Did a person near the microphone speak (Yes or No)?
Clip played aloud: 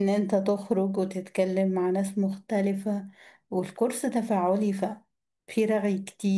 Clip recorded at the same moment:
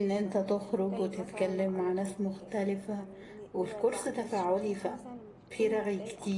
Yes